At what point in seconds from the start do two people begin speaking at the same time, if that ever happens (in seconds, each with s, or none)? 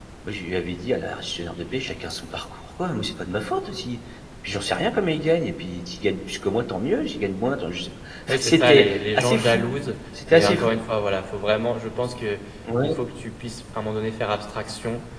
8.3 s